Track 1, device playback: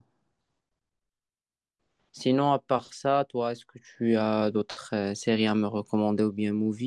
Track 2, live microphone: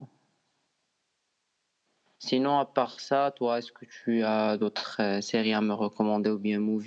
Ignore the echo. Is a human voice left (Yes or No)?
No